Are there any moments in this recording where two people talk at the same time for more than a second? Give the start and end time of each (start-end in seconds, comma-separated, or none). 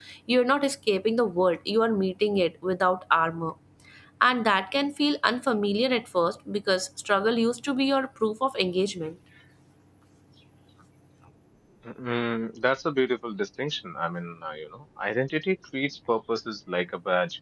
none